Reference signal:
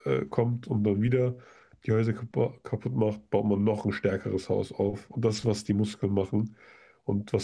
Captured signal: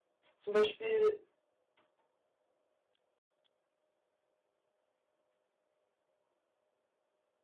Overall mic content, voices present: user only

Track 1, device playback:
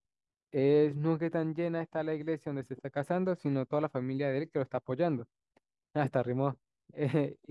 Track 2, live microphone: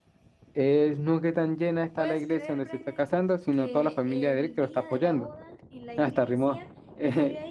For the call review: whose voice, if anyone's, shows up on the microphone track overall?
both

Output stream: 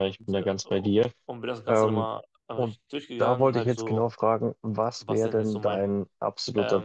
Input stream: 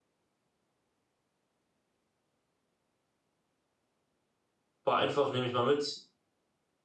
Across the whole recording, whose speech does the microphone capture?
user only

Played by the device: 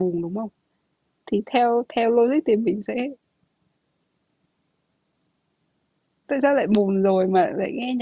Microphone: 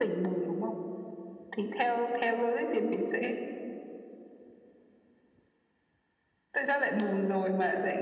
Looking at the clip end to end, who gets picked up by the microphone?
echo only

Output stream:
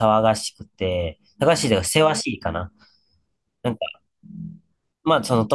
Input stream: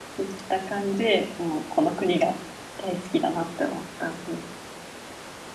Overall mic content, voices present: user only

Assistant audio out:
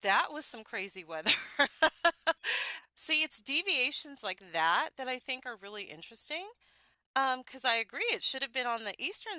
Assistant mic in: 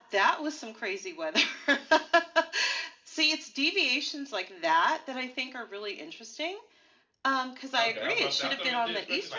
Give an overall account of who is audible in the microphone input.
both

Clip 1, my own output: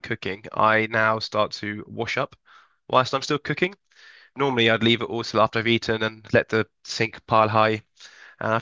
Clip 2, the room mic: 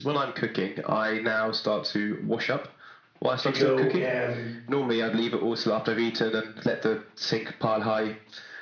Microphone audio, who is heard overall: both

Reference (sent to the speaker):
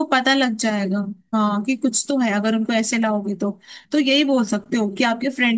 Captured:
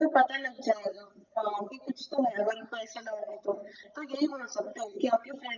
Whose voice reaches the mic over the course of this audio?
echo only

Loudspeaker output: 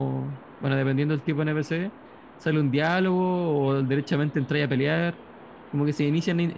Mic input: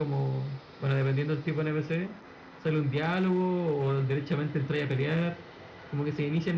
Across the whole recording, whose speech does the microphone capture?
echo only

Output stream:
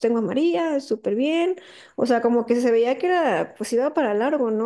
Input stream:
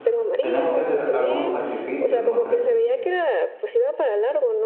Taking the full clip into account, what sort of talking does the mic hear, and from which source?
both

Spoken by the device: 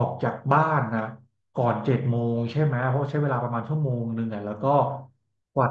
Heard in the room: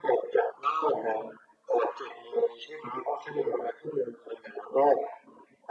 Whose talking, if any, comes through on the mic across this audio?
echo only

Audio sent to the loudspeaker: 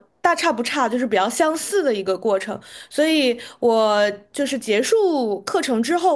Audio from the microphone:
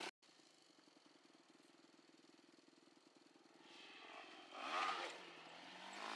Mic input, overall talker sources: neither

